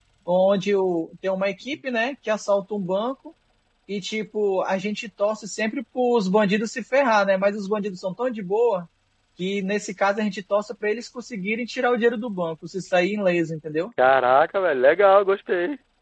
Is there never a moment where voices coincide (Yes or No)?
Yes